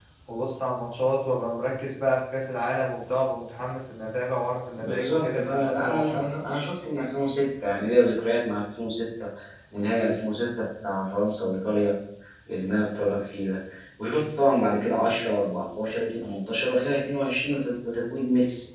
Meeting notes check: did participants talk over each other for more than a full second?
Yes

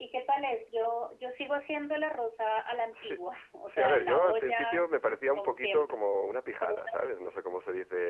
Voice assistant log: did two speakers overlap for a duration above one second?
Yes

